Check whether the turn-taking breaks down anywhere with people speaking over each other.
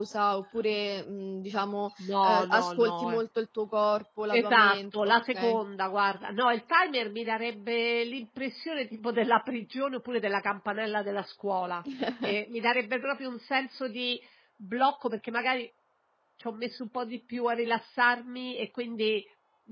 Yes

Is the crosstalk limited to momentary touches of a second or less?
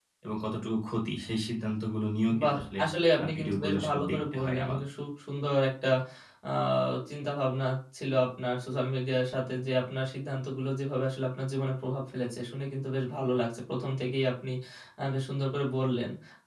No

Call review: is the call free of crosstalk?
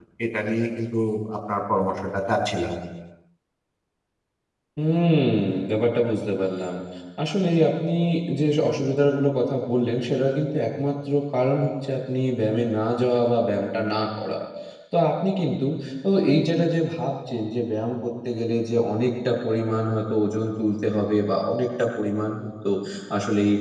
Yes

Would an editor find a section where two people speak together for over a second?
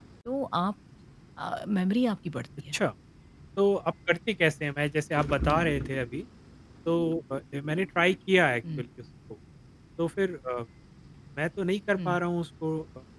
No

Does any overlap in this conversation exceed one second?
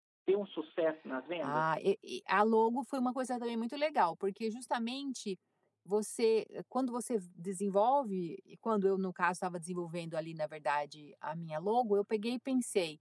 No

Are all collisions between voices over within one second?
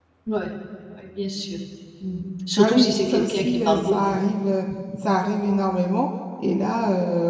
No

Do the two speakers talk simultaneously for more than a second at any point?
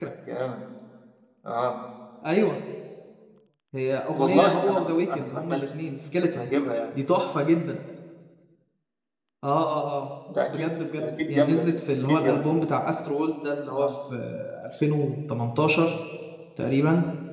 Yes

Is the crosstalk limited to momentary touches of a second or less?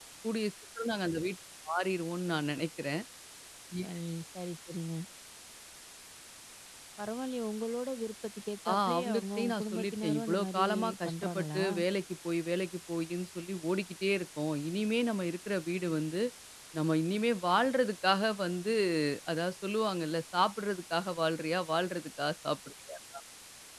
No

